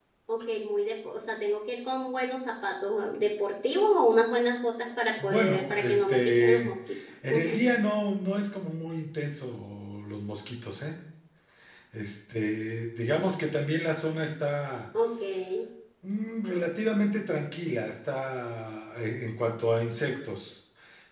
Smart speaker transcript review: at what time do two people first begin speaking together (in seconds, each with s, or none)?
5.2 s